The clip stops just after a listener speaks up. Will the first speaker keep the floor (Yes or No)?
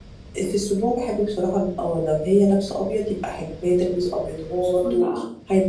Yes